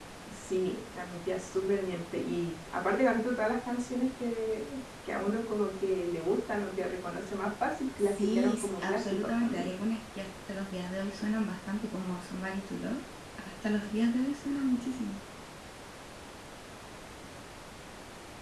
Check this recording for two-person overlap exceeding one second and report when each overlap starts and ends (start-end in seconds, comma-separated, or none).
8.0-9.7